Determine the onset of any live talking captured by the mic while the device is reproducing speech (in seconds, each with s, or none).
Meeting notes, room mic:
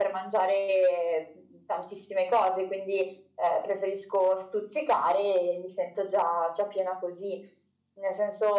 none